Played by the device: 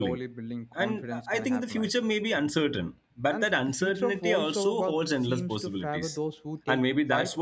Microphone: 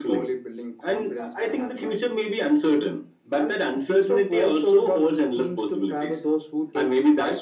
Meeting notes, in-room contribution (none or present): none